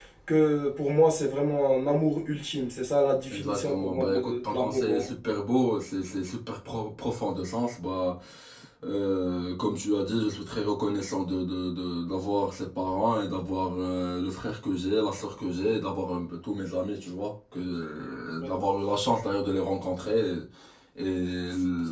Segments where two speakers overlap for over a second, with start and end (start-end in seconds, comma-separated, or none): 3.3-5.1